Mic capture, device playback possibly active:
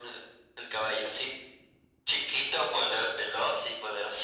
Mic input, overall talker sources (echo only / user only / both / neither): echo only